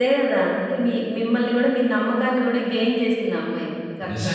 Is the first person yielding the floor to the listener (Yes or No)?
Yes